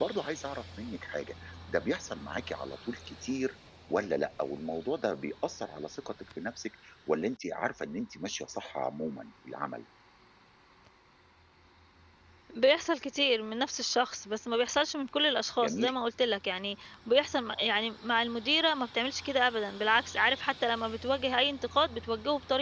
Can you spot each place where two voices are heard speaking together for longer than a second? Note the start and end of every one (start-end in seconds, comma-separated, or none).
none